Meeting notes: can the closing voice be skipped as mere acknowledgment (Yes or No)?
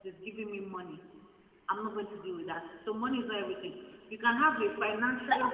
No